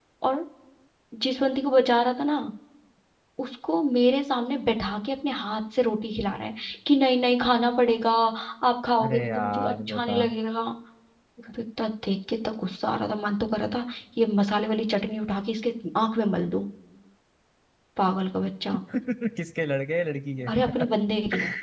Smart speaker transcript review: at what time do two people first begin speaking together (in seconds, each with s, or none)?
9.0 s